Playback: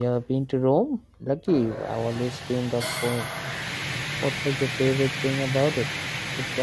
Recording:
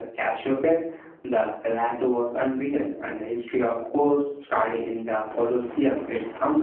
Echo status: none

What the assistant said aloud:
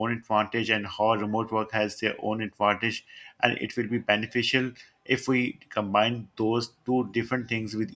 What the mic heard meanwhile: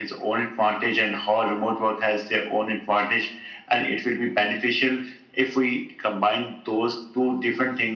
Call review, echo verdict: present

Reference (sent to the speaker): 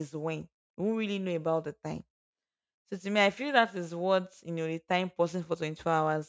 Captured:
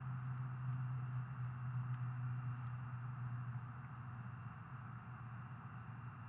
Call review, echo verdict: none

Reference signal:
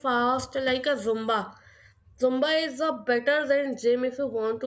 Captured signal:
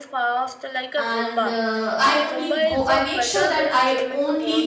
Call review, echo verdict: present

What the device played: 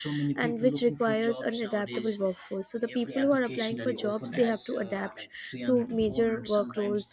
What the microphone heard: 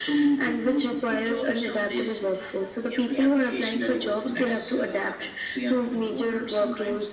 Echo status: present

